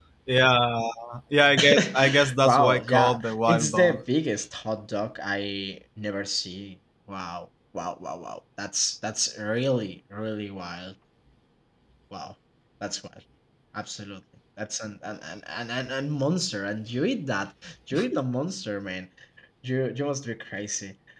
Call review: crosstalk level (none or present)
present